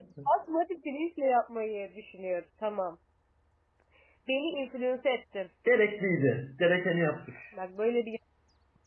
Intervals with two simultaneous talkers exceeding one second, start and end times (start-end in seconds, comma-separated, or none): none